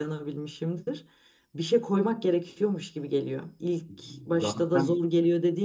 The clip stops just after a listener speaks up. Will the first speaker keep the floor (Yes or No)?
Yes